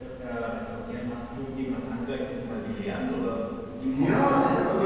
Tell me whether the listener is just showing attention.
No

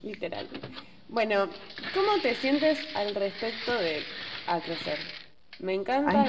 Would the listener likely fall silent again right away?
Yes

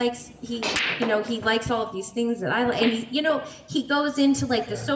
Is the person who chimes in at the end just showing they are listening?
Yes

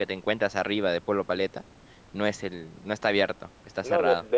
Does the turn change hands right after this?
Yes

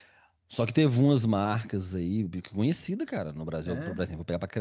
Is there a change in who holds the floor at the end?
No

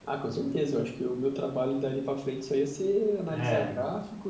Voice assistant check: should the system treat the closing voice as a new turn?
No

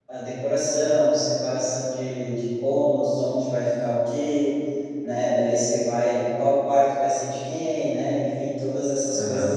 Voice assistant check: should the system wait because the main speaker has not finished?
Yes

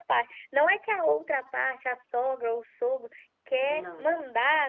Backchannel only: Yes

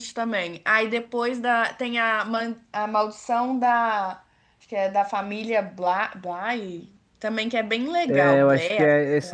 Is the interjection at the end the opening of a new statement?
Yes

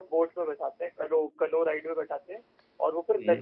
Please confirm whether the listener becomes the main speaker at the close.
No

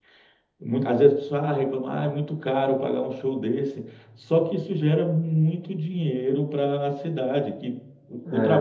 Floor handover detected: No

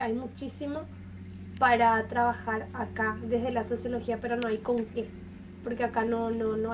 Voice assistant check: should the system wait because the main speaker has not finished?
Yes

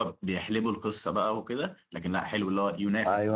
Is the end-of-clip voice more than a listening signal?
Yes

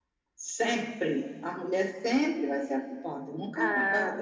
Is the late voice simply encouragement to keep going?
Yes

